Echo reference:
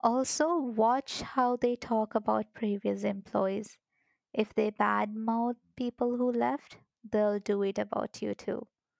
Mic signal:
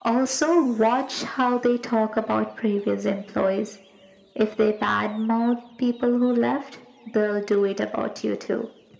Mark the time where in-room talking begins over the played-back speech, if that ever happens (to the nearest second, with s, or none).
none